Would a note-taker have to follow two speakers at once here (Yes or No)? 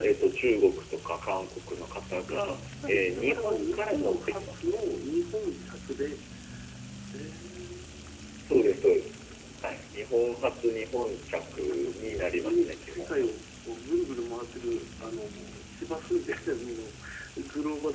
Yes